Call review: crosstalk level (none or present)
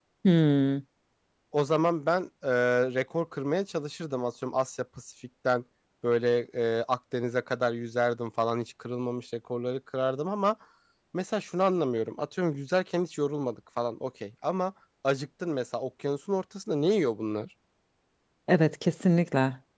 none